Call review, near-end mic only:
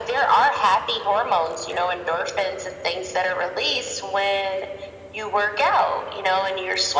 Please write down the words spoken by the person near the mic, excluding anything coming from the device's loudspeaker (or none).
none